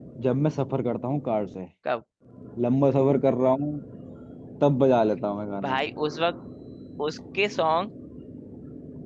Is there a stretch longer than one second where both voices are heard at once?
No

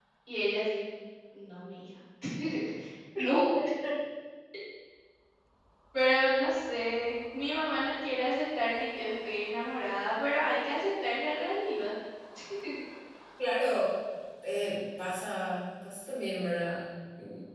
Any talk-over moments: No

